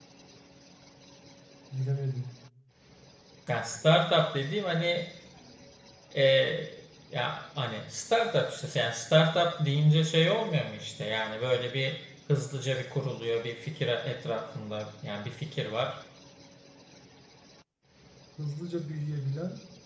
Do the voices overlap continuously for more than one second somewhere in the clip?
No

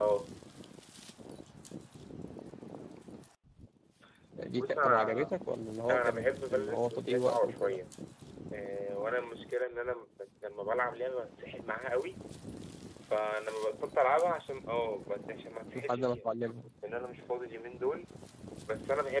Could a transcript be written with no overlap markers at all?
No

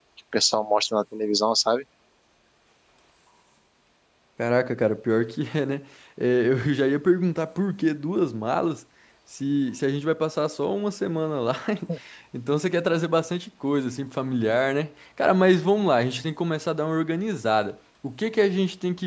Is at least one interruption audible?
No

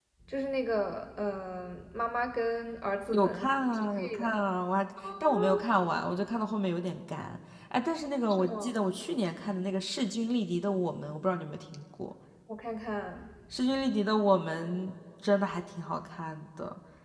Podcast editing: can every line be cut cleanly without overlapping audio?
No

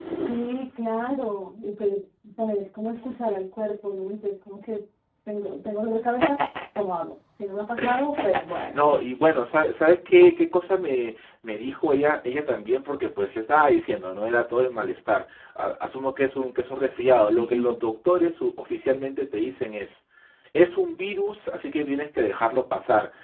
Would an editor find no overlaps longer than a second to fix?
Yes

